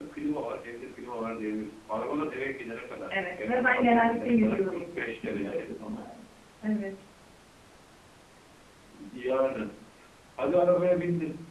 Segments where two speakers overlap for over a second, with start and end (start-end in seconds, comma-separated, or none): 3.1-6.0